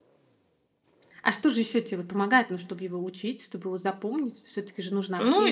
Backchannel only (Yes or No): No